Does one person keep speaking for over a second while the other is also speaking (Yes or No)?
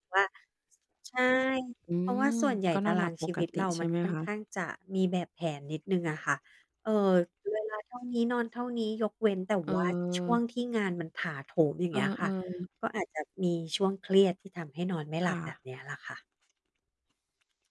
Yes